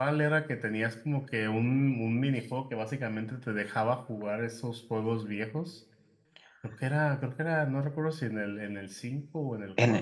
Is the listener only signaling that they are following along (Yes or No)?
No